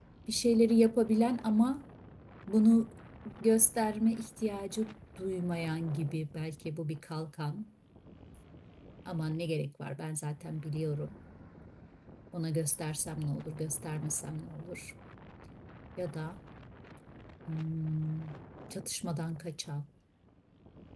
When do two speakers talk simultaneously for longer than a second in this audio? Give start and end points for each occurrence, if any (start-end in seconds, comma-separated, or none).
none